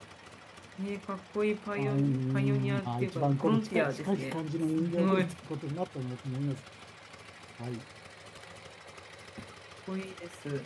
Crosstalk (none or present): present